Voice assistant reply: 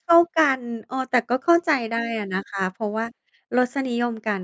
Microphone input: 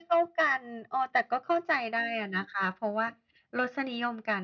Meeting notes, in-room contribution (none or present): none